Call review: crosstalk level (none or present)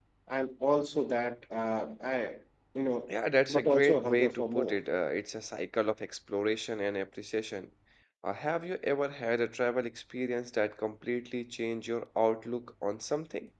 present